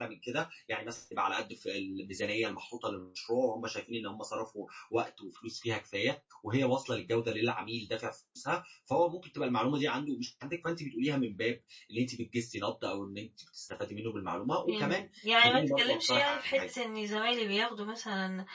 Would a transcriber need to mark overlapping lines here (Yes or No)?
Yes